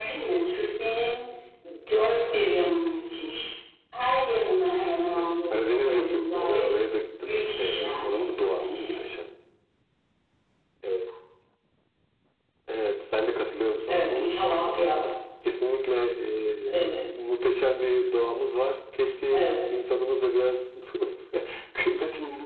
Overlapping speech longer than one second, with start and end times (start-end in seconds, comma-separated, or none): 5.1-6.8, 7.2-9.0, 13.9-15.1